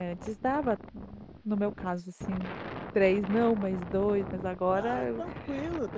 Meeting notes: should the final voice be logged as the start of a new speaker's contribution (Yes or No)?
Yes